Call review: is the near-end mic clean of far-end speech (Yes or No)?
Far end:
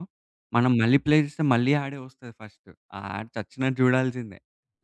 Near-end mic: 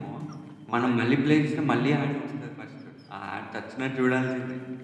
No